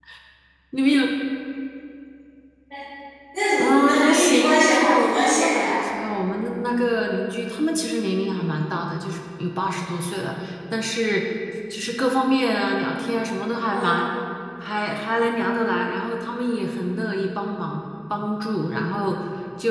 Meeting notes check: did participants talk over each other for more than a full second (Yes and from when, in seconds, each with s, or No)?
Yes, from 3.6 s